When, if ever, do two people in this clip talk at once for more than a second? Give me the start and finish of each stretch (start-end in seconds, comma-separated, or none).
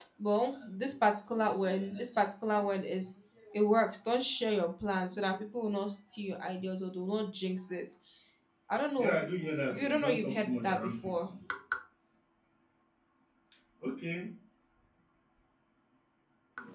9.7-11.3